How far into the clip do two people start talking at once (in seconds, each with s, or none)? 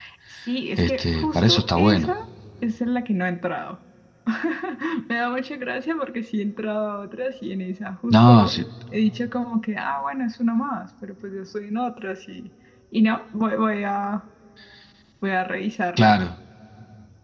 0.8 s